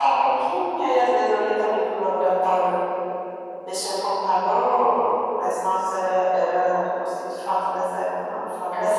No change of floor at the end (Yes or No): No